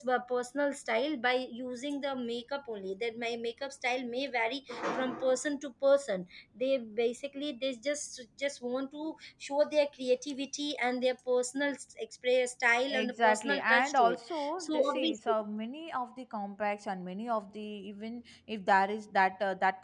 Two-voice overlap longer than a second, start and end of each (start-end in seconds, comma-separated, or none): 12.9-15.3